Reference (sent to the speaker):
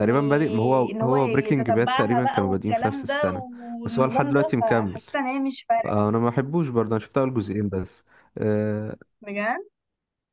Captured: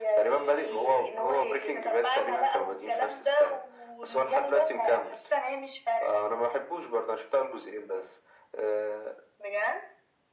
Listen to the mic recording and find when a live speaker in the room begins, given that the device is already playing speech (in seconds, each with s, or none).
none